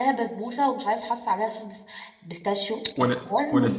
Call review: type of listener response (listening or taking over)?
taking over